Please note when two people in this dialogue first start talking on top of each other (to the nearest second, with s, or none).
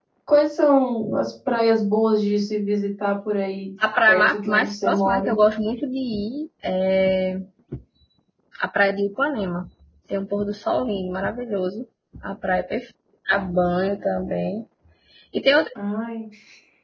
4 s